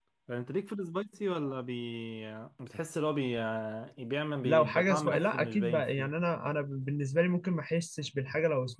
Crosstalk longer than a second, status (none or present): present